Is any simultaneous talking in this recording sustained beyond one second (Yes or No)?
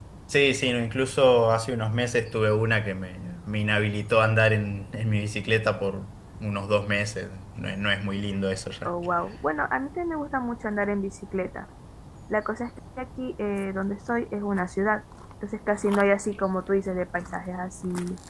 No